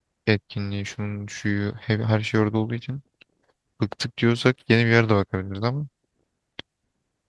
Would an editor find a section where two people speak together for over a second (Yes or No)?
No